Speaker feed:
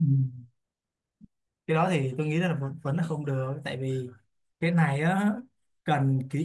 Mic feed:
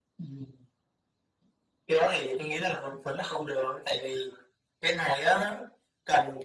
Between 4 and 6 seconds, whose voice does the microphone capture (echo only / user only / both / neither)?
echo only